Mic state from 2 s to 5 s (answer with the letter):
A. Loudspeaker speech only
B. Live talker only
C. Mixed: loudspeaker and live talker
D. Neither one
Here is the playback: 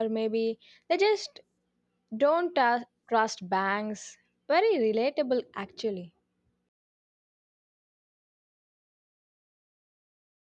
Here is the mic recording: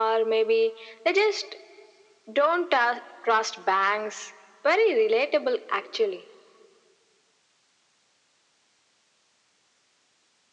A